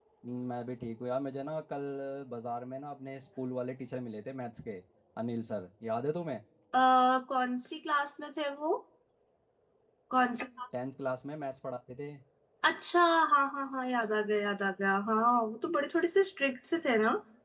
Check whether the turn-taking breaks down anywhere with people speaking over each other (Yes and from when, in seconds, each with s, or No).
No